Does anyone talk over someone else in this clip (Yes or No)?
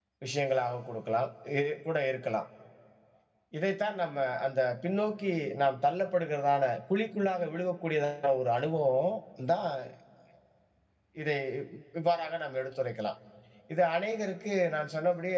No